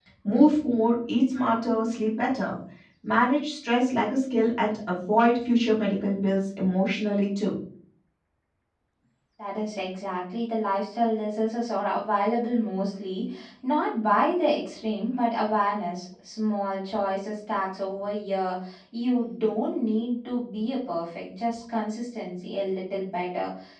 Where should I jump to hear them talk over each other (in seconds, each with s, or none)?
none